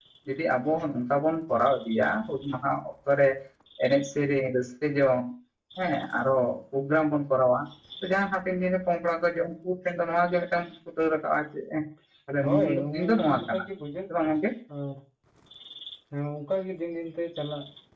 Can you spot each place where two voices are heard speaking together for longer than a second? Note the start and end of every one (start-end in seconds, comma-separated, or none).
12.4-13.6